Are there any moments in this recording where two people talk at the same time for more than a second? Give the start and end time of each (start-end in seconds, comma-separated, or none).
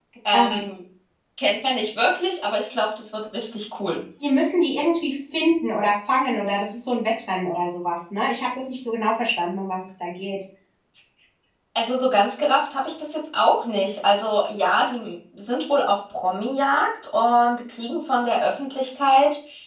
none